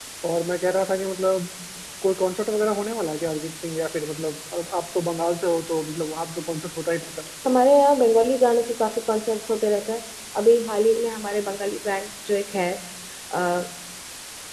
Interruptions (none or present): none